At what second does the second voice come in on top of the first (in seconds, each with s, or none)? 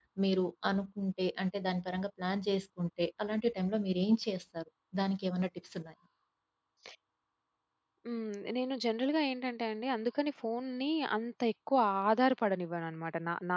none